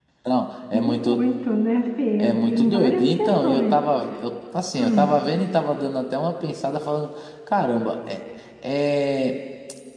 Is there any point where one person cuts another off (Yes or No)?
Yes